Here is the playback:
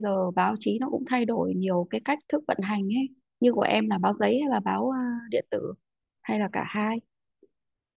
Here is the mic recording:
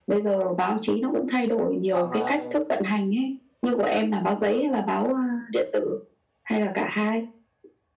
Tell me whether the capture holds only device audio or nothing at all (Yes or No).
No